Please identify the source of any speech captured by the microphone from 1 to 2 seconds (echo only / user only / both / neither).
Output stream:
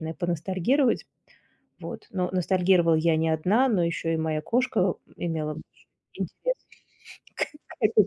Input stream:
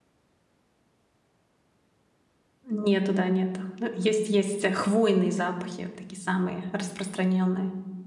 neither